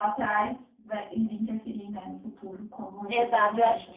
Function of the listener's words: taking over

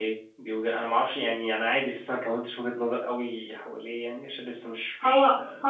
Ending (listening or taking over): taking over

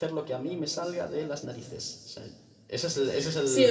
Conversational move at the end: taking over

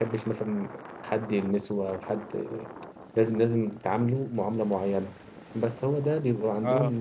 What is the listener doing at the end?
listening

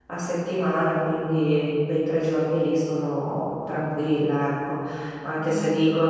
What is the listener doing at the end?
listening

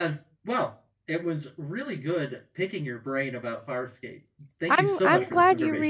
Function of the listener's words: taking over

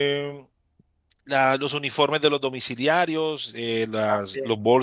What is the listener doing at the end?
listening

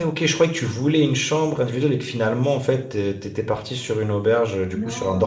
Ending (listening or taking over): taking over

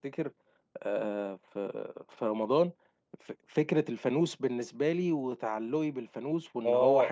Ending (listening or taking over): taking over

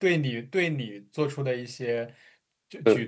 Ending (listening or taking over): listening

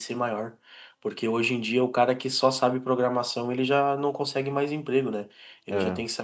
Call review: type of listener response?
listening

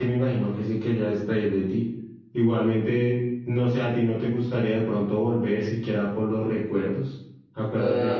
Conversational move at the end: taking over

